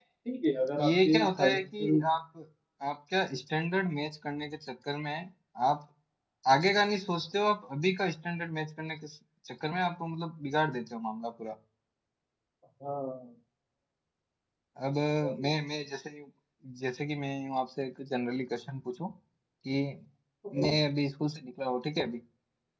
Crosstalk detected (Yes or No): Yes